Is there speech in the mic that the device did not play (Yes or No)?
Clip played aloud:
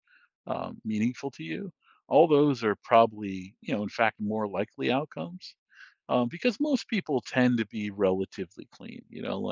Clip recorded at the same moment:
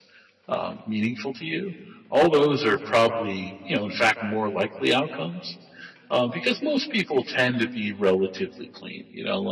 No